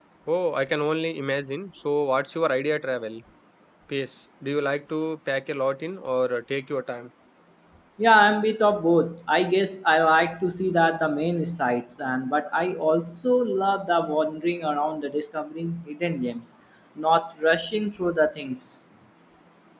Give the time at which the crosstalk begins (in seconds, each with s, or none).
none